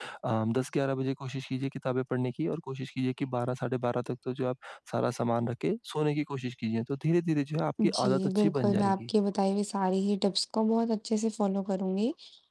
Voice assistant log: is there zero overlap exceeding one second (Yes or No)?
No